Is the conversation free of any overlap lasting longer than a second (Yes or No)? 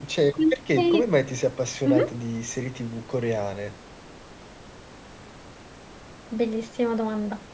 Yes